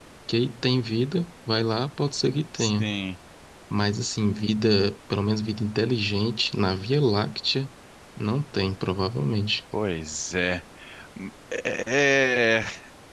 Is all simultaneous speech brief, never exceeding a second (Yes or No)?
Yes